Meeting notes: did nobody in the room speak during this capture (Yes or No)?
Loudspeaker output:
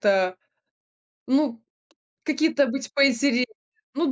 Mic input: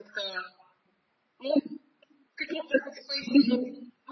Yes